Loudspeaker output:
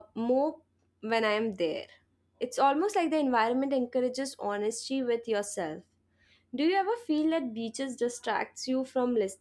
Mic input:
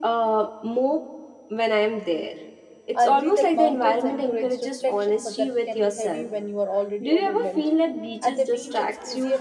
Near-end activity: present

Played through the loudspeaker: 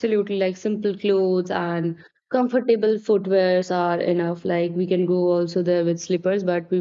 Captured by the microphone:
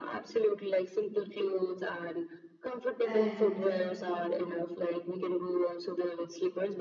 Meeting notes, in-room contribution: present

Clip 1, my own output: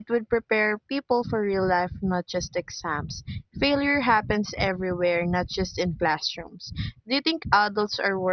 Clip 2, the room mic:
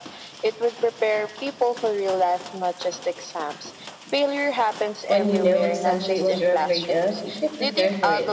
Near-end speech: present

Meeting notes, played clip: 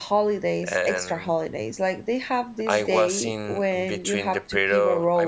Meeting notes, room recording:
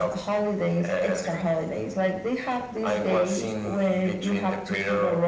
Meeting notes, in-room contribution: none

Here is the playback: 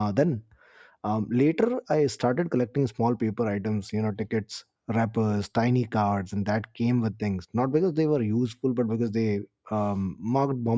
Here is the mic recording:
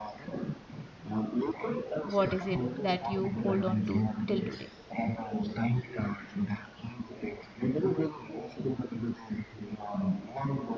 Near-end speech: present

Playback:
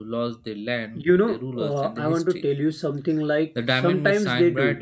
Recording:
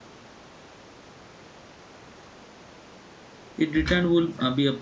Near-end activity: present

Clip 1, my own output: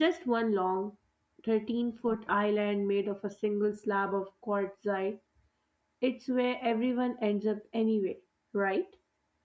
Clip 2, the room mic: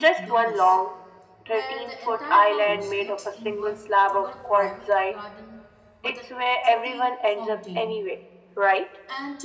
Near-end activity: present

